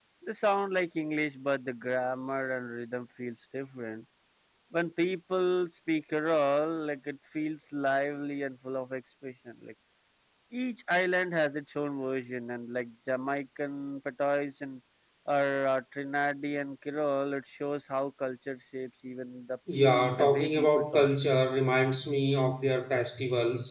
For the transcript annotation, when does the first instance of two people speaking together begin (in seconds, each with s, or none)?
19.7 s